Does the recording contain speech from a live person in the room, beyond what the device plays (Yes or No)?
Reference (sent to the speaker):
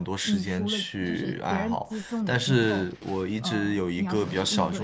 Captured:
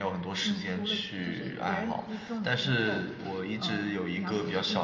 No